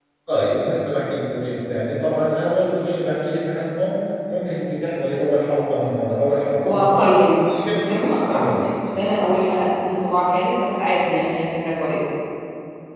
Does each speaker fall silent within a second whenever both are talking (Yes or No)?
No